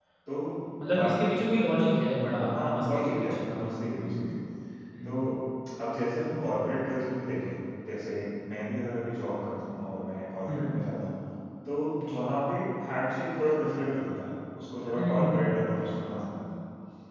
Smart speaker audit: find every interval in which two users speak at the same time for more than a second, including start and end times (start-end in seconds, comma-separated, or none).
2.5-4.3